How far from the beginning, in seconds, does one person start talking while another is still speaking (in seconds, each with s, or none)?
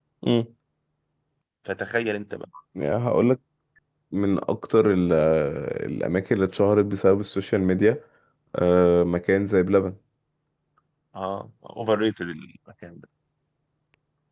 none